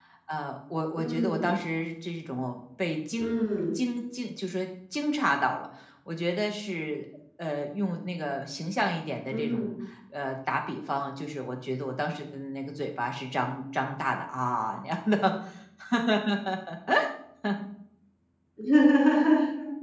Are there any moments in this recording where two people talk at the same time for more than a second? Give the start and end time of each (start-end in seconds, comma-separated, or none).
none